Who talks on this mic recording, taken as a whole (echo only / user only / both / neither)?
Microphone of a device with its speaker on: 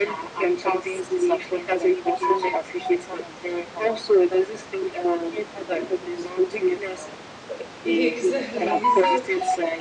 both